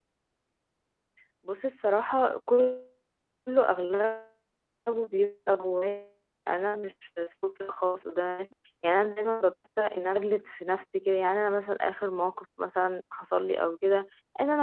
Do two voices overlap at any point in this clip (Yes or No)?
No